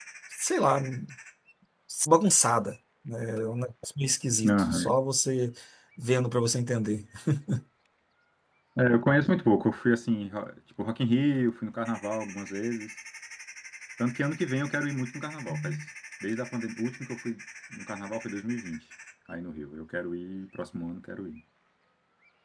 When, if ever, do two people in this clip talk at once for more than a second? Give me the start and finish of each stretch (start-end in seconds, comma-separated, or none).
none